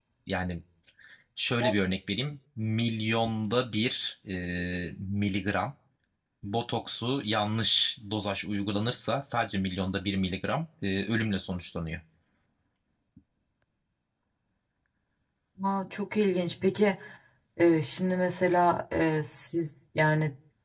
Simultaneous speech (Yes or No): No